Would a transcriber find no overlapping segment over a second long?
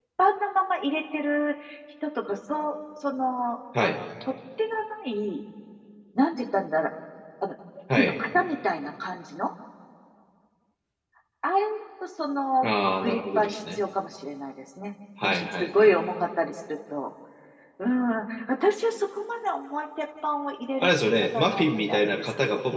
No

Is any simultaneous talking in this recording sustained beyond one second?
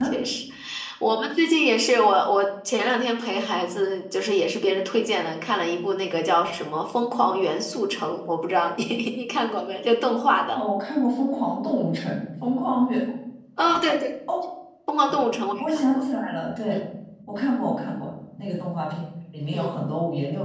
No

